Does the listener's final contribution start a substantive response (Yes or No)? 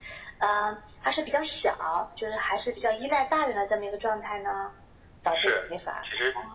Yes